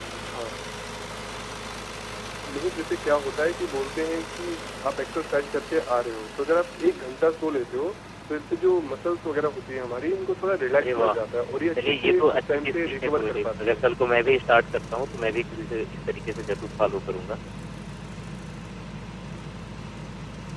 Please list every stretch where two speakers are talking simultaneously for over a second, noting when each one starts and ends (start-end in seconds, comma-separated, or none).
11.8-13.8